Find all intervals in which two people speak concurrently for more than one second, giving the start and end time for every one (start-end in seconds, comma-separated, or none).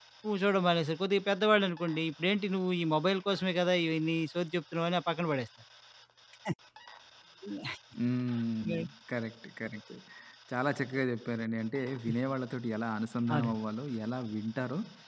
none